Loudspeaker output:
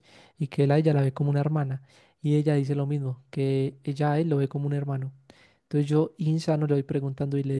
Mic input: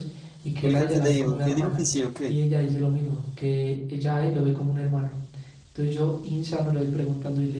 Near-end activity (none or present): present